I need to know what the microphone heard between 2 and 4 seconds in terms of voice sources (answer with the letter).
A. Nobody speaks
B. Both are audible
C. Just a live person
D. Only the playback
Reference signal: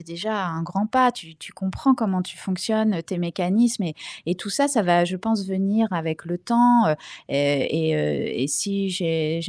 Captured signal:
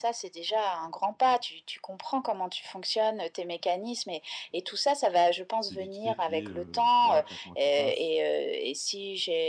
D